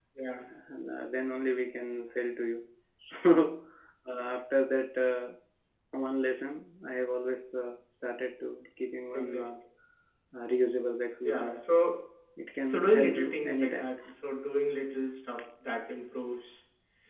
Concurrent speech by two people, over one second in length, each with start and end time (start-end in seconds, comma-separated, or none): 12.7-13.9